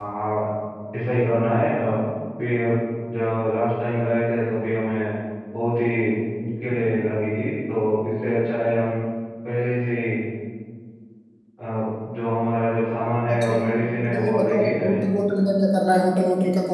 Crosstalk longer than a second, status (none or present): present